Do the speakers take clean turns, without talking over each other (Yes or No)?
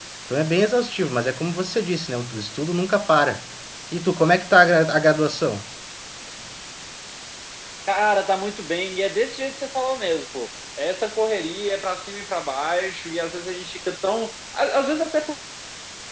Yes